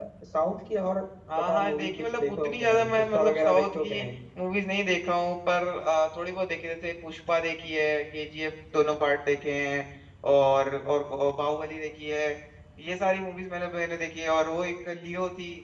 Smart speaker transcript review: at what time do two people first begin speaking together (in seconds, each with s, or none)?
1.4 s